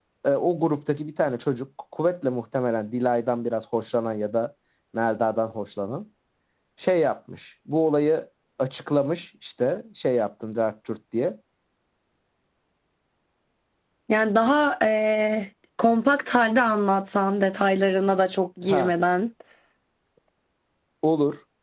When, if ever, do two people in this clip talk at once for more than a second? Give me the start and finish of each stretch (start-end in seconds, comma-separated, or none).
none